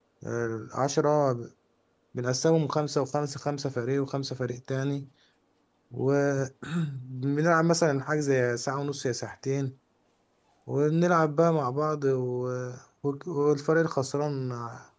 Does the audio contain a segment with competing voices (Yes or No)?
No